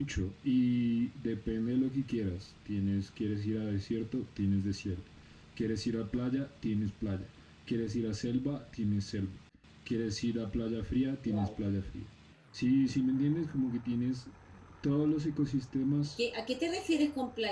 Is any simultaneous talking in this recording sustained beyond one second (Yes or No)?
No